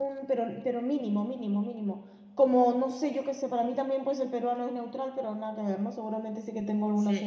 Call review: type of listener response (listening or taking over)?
taking over